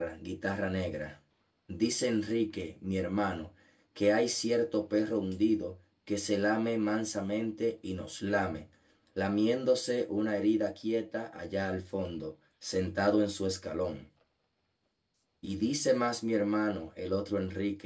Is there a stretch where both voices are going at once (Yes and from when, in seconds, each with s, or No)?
No